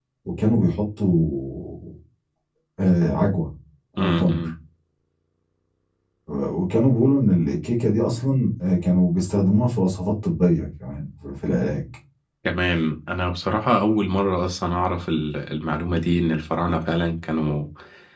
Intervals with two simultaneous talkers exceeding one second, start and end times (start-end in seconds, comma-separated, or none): none